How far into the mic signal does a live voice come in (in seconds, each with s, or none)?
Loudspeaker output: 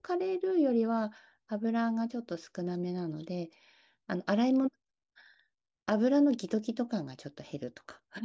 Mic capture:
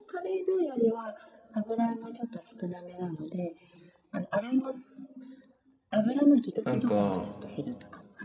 6.6 s